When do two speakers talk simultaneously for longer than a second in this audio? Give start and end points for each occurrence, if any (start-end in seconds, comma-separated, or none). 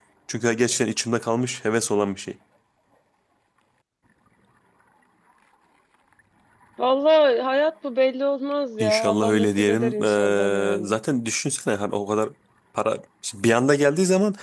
8.8-11.0